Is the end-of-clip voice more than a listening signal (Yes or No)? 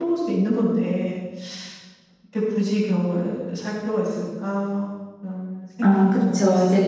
Yes